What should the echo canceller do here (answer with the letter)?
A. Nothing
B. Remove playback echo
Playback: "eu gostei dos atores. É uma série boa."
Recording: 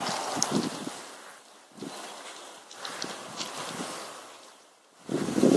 A